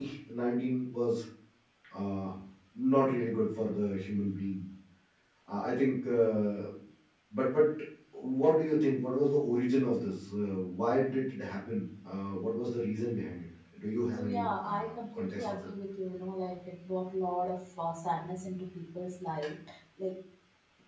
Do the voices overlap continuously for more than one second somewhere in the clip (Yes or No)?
Yes